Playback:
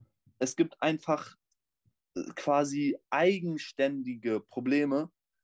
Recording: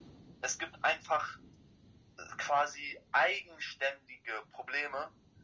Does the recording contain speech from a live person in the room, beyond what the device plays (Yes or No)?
No